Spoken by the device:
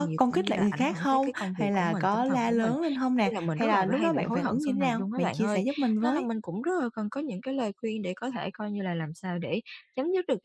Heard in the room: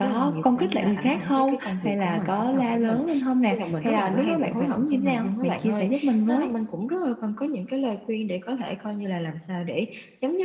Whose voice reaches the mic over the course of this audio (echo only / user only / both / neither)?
echo only